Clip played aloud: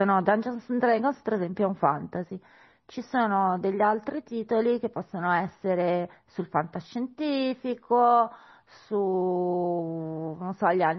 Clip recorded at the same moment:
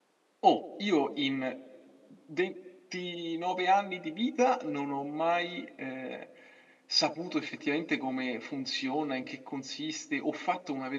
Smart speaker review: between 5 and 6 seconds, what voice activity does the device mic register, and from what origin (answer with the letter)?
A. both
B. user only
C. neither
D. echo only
B